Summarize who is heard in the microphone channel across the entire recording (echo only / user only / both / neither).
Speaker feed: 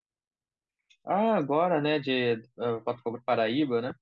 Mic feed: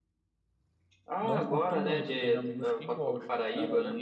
both